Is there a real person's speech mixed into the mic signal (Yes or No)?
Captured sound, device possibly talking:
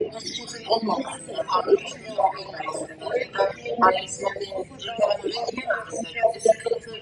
No